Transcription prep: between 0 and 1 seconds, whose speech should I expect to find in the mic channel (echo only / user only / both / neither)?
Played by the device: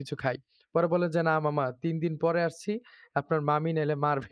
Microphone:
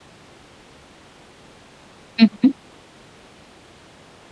neither